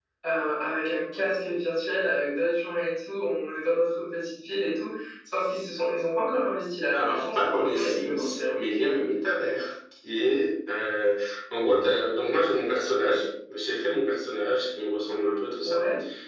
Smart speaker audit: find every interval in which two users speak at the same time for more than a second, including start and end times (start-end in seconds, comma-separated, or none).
6.9-8.4